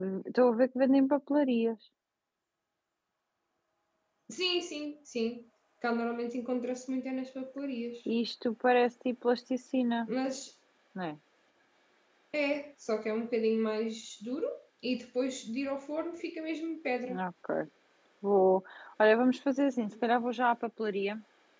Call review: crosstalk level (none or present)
none